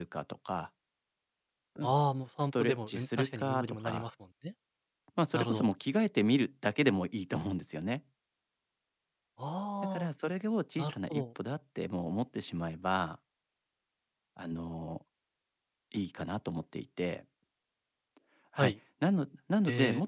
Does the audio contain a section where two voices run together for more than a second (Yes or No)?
Yes